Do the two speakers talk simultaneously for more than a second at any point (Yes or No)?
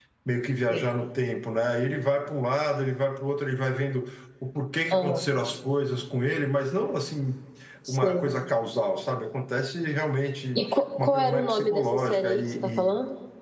Yes